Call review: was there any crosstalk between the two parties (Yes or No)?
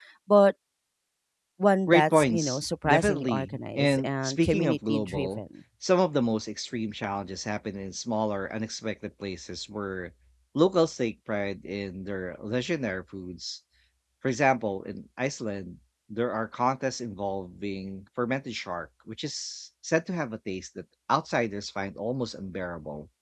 Yes